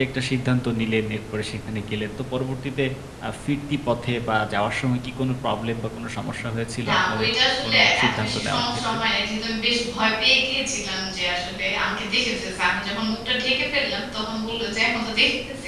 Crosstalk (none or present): present